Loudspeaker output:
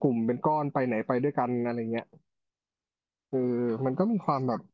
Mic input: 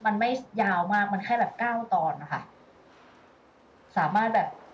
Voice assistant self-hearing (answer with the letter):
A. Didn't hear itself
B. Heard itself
A